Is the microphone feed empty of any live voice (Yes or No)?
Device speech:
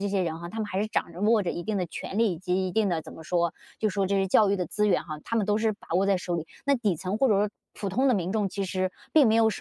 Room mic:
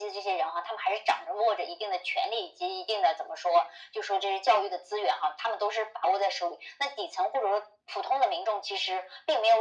Yes